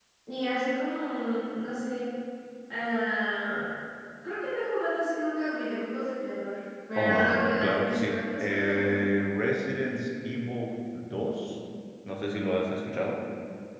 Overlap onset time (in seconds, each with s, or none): 7.0 s